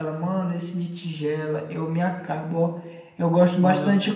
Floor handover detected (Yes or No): No